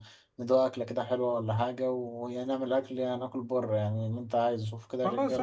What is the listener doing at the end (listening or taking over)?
taking over